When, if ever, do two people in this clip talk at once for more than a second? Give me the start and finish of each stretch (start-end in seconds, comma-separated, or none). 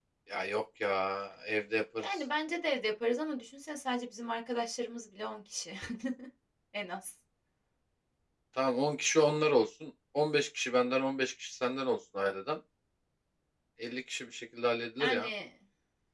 none